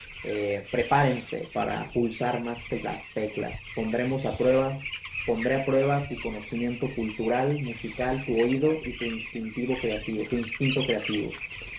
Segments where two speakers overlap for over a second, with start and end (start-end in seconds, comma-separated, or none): none